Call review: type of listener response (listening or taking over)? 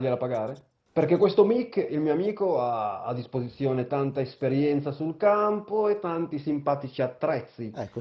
taking over